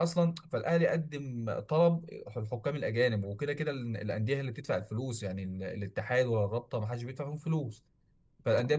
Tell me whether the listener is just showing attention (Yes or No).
Yes